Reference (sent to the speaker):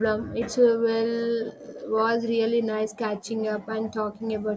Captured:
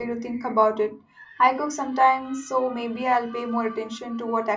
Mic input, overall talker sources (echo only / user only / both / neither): user only